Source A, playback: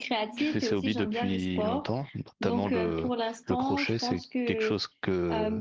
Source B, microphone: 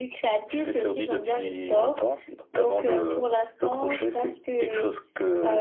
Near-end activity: none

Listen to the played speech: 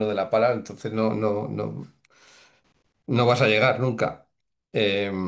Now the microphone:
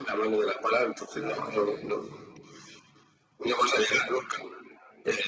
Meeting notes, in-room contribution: present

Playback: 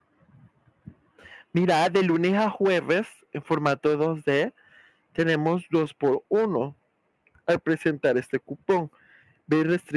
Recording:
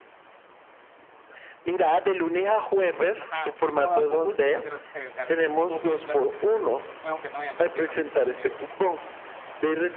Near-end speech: present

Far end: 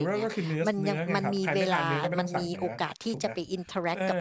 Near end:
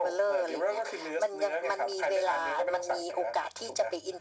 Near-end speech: none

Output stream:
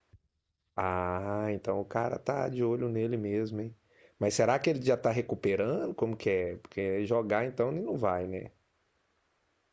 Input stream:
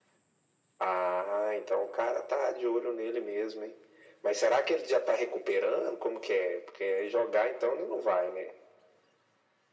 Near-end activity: none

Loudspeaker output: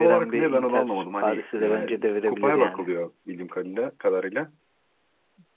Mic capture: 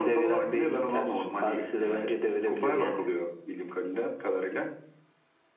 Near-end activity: none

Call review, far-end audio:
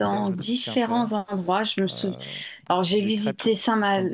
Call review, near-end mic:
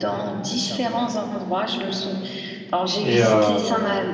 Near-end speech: present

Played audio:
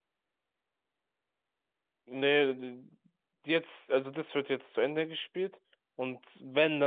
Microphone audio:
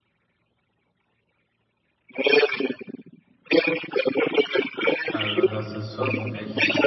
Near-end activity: present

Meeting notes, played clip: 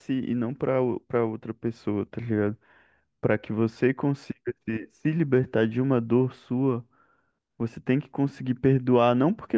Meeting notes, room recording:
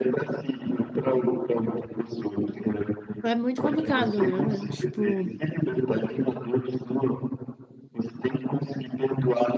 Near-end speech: present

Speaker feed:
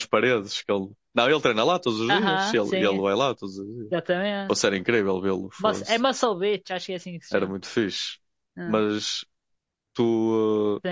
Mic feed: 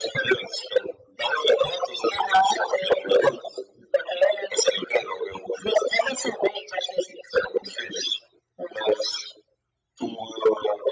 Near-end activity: none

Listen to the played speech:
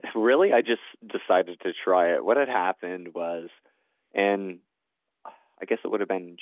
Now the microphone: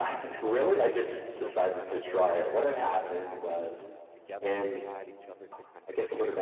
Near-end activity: present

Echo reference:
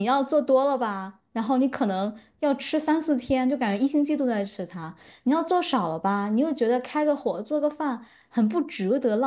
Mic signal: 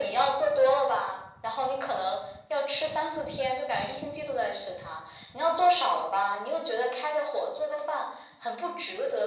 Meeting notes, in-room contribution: none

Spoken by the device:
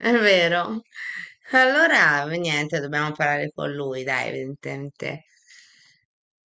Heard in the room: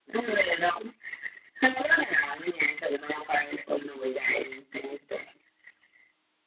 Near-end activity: none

